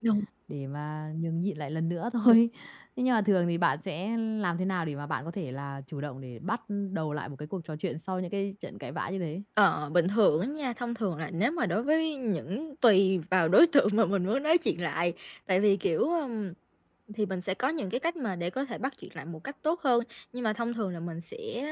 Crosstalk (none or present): none